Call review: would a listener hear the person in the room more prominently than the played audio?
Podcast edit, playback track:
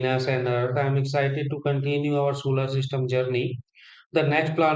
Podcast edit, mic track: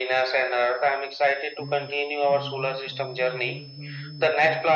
No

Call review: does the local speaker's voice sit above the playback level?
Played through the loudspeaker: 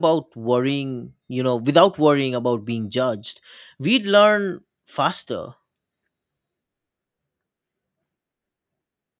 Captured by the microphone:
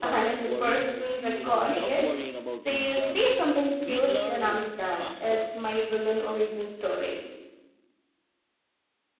Yes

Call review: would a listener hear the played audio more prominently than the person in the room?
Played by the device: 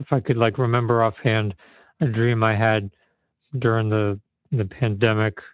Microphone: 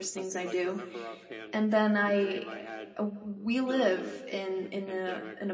No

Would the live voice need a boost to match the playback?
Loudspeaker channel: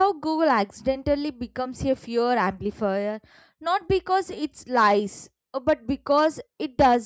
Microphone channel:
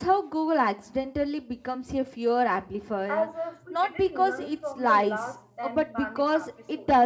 Yes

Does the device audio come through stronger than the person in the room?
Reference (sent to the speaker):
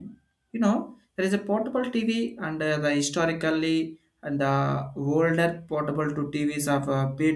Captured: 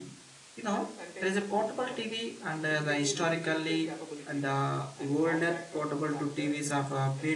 Yes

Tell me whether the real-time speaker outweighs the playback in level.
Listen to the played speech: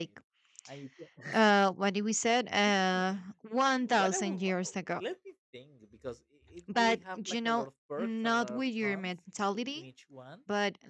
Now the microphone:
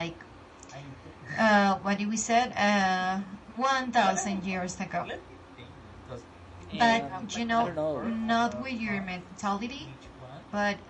No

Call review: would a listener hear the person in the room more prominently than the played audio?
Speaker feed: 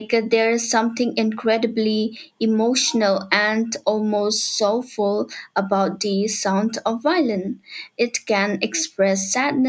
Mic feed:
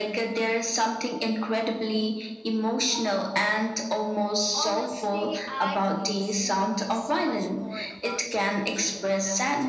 No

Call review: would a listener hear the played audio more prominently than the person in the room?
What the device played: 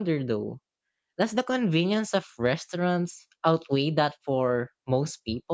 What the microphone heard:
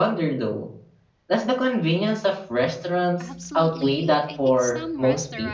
Yes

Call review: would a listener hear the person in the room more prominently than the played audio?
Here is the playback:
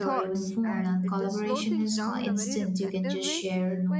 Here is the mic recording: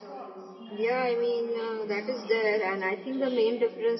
Yes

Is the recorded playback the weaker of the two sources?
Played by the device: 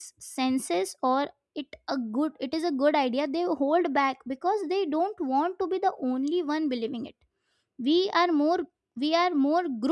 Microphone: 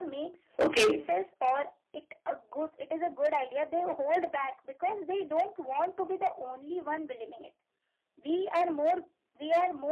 Yes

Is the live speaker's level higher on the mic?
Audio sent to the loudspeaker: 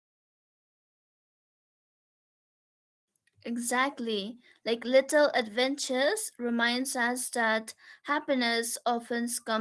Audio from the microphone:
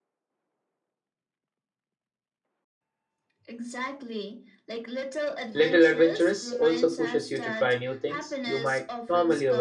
Yes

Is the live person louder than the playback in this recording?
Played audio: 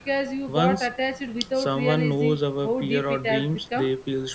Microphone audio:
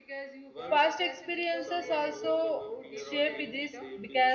Yes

